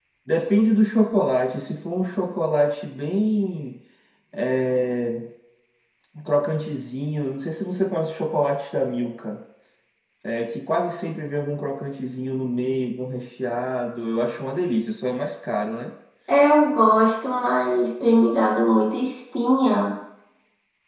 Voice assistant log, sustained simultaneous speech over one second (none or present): none